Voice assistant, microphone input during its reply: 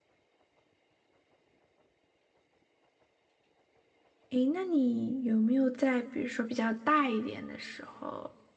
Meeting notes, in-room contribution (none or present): present